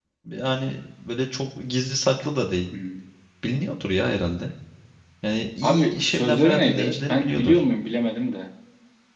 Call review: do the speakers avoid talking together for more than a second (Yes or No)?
No